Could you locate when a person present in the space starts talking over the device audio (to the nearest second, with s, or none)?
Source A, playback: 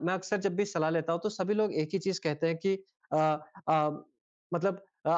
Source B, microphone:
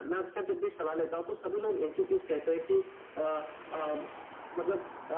none